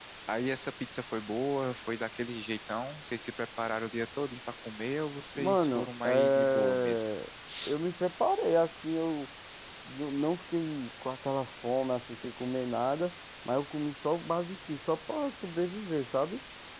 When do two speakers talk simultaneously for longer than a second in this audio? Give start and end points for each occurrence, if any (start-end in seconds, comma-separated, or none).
5.3-7.0